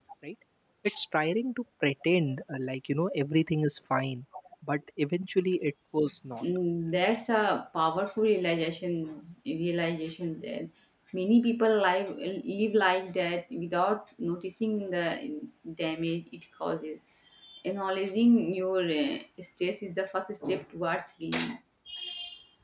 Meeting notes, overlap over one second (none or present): none